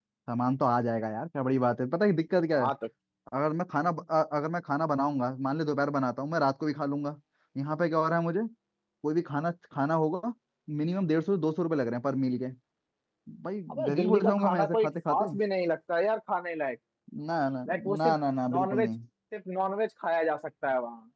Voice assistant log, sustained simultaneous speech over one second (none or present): present